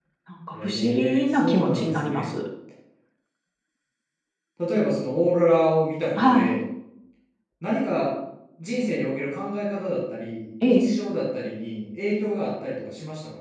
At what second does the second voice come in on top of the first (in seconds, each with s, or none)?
0.5 s